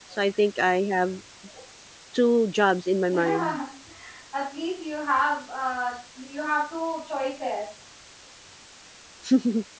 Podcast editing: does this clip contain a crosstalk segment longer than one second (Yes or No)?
No